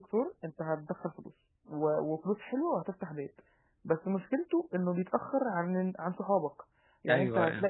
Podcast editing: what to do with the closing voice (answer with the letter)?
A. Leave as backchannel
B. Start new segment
A